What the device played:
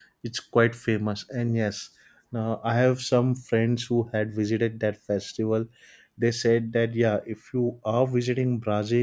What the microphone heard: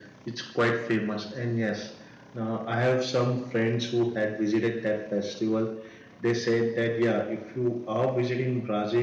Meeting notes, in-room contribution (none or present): none